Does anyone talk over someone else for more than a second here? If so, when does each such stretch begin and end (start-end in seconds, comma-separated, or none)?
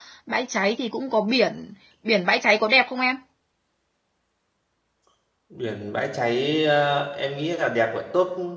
none